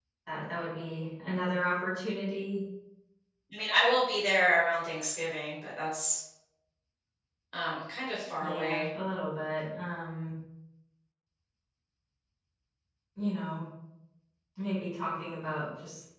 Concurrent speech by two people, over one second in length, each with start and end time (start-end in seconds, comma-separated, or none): none